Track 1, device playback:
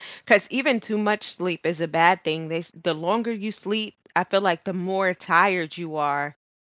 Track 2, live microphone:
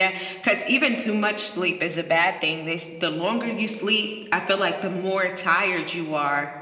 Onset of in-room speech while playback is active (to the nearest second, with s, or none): none